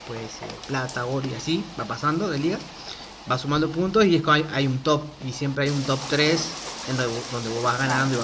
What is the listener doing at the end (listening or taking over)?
listening